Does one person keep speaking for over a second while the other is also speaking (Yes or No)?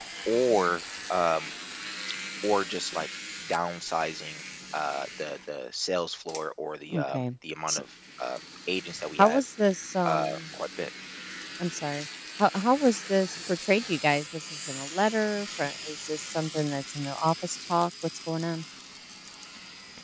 No